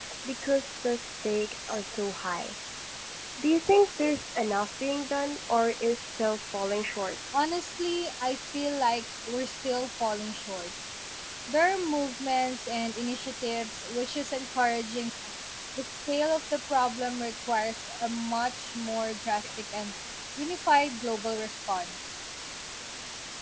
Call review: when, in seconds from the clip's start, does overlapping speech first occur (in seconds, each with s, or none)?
none